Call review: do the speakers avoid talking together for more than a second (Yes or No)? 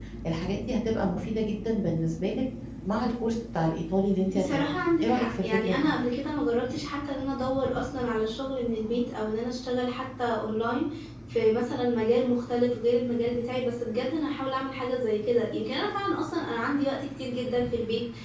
No